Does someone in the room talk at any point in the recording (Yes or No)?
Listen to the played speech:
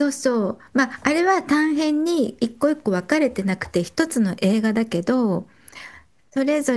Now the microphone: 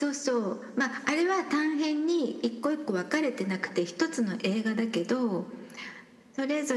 No